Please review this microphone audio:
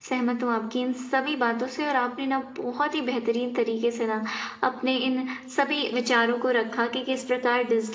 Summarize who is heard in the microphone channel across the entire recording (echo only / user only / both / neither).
user only